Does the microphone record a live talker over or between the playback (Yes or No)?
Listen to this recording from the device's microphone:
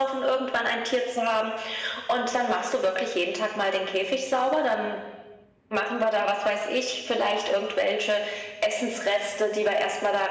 No